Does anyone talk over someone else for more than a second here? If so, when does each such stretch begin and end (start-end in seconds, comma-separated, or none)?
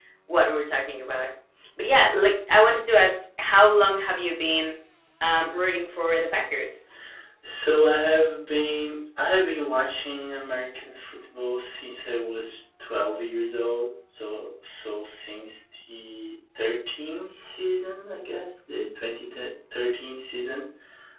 none